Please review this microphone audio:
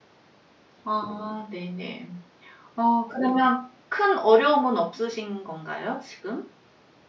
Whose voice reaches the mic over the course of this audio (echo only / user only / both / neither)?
user only